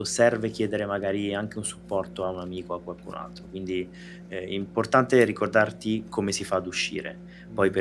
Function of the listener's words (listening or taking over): listening